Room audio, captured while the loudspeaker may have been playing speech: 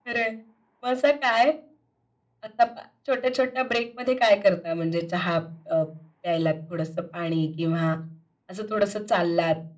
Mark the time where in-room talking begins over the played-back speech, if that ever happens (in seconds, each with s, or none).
none